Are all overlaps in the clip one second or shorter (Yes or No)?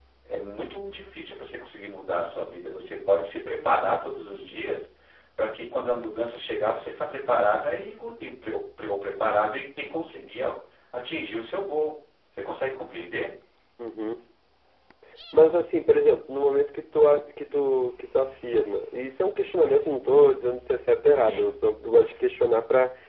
Yes